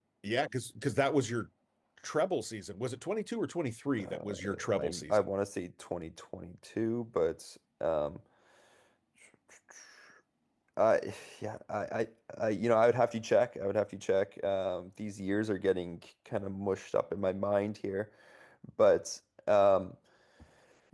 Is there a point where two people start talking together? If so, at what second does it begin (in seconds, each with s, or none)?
4.0 s